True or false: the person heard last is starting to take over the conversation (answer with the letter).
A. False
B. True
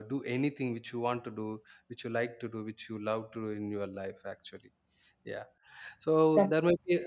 A